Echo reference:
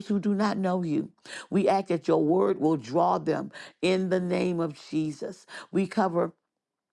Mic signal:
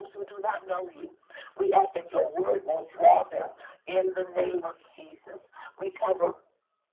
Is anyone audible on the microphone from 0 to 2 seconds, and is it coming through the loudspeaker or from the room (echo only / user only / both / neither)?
echo only